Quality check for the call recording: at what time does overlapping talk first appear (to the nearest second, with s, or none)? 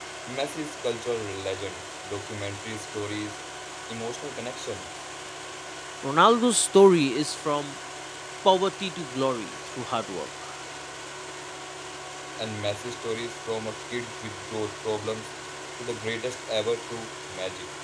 none